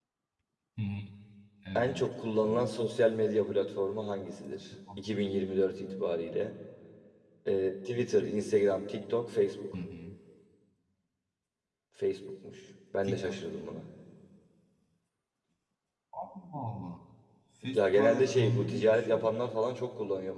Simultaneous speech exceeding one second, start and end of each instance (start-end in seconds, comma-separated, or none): 17.6-19.2